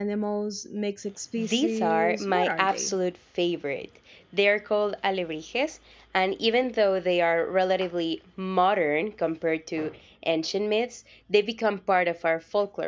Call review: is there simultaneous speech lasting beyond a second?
Yes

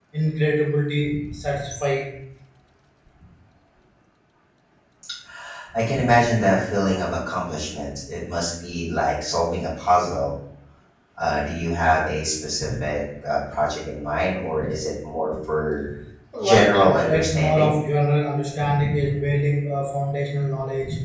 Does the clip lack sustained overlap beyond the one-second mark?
No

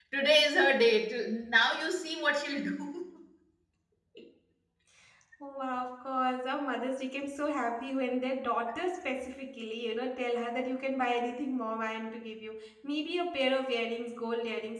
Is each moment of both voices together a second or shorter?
Yes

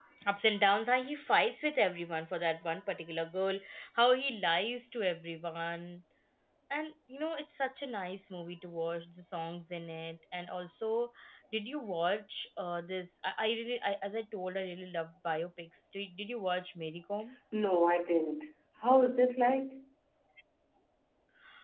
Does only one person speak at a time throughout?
Yes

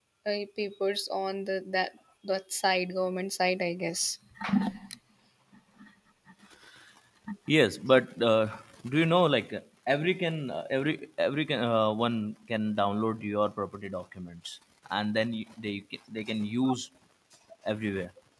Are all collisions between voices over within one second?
Yes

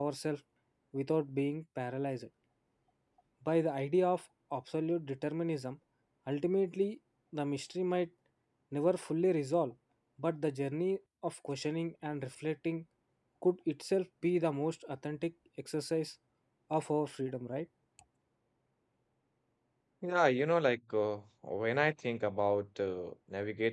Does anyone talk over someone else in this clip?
No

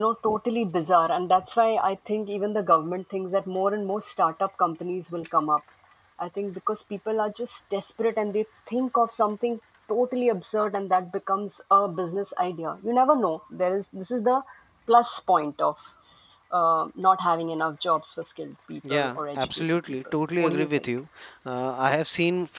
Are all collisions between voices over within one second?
No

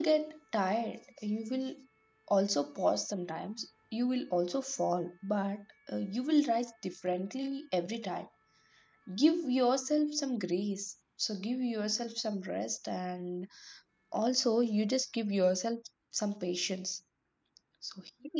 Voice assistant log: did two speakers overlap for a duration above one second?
No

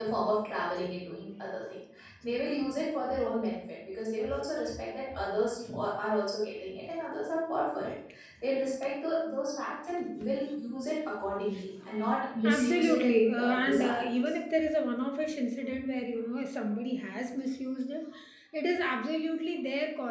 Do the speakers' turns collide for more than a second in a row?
Yes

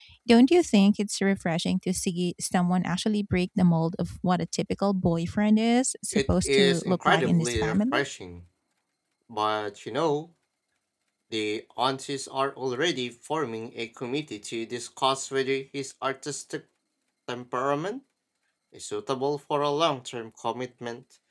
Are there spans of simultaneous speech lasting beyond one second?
Yes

